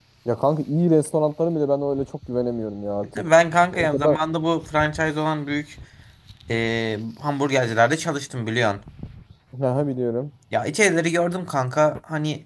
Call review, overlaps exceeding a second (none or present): none